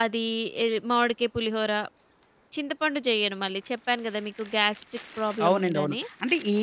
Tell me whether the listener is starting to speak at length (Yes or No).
Yes